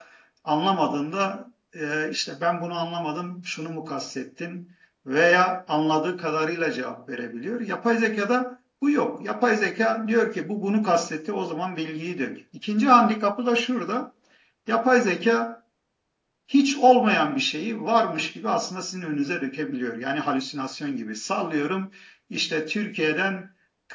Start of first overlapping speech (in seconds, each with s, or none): none